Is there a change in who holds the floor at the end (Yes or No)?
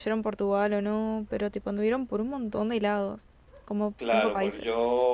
Yes